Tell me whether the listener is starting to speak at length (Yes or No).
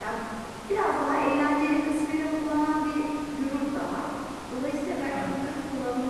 No